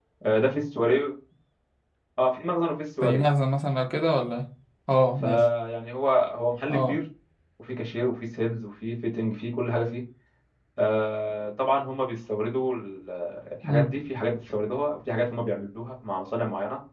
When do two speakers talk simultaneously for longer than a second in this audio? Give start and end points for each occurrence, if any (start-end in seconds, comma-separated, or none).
none